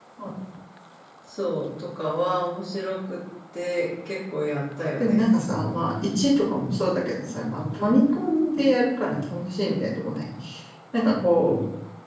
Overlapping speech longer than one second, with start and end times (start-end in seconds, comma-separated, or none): none